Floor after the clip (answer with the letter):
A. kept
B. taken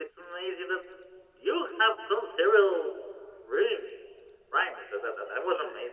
A